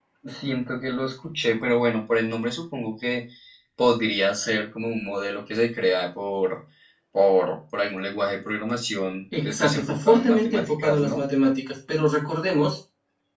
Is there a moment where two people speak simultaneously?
Yes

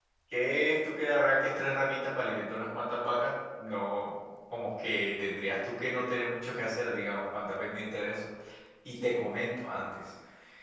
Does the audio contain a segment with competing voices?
No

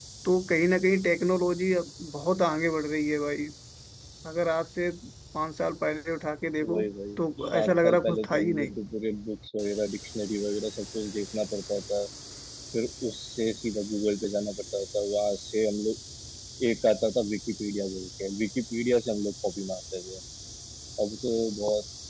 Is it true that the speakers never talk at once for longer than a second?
No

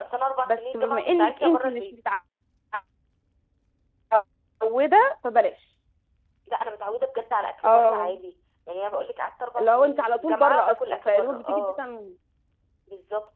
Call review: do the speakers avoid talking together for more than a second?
No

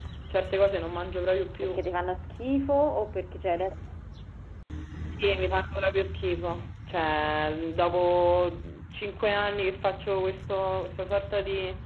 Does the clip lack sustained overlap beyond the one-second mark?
Yes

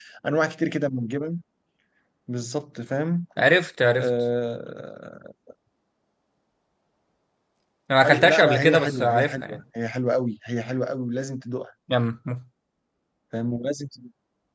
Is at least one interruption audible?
Yes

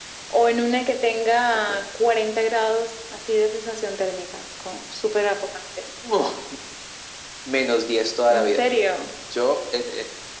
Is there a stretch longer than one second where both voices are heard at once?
No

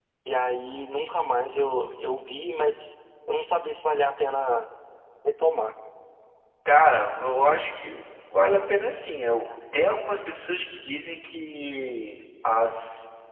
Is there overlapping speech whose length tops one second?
No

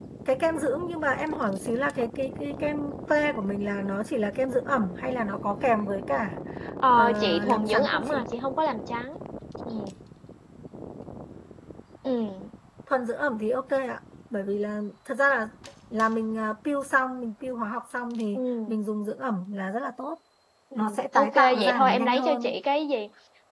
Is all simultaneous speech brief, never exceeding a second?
No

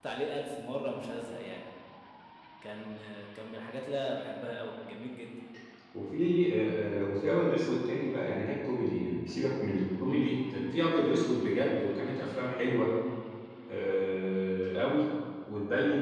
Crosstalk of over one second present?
No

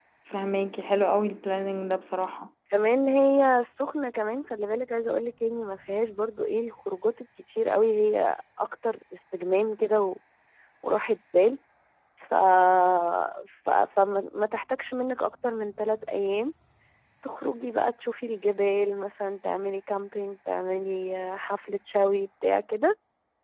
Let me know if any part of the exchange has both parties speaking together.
No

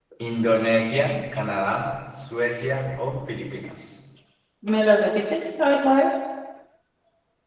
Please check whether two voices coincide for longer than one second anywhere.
No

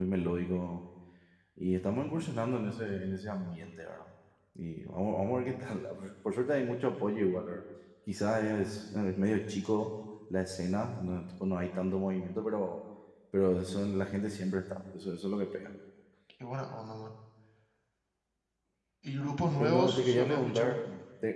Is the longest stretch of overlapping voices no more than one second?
No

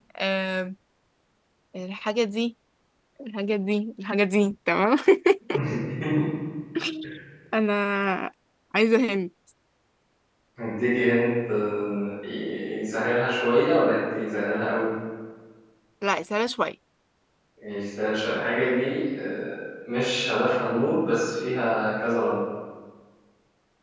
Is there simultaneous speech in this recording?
No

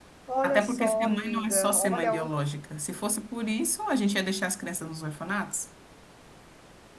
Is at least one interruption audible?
Yes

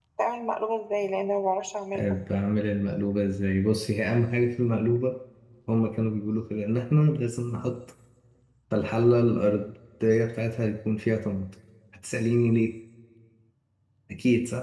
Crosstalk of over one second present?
No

